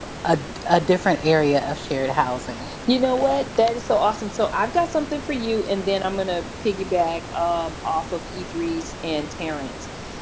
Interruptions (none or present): none